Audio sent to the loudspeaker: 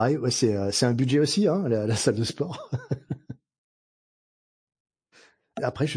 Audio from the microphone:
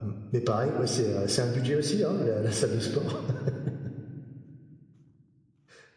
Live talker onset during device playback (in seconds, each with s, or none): none